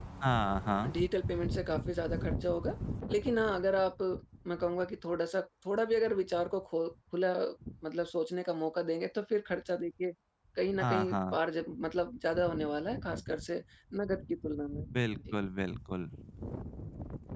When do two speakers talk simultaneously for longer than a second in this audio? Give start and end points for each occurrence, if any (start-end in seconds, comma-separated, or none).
none